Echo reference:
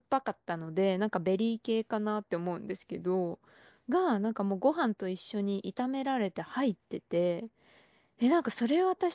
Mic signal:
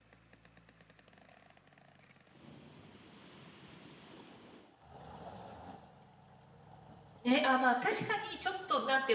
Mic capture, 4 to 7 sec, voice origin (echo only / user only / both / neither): neither